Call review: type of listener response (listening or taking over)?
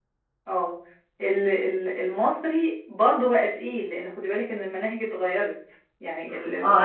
taking over